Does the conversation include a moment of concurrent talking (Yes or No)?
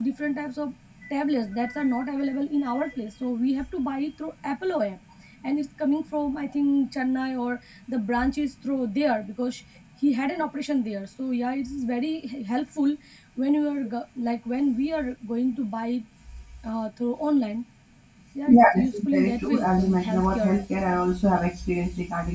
Yes